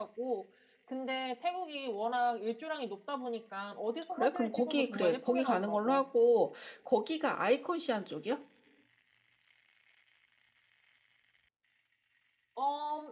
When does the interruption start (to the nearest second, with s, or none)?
4 s